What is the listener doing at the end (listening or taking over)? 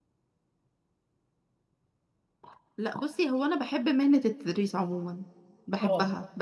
listening